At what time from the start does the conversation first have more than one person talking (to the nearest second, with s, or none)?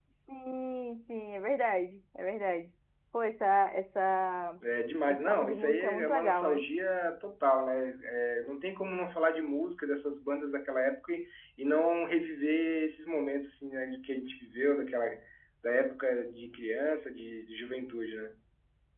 5 s